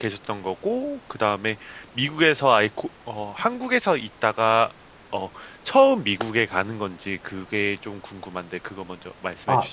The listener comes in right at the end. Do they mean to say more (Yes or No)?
Yes